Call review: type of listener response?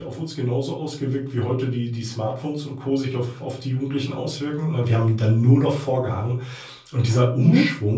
listening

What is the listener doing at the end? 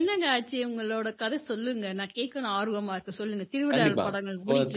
taking over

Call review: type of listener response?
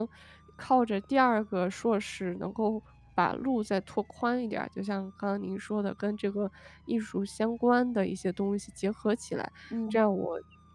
listening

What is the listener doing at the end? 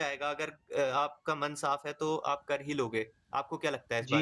taking over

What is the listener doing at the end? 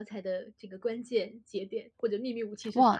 taking over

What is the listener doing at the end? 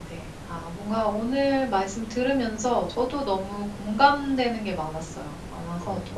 listening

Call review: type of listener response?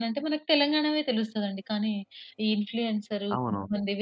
listening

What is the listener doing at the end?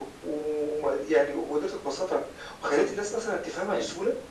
taking over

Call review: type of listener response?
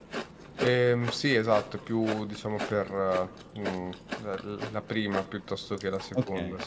taking over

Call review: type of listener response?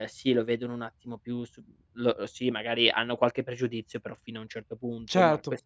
listening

